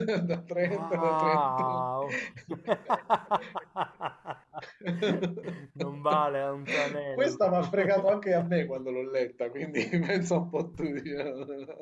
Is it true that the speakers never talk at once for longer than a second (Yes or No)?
No